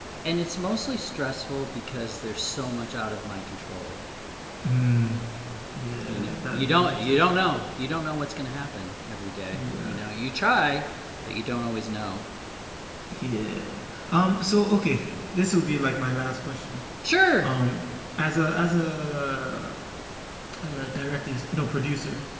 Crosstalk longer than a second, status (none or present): present